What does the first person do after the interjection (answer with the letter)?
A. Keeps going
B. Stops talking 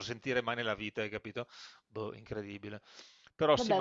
A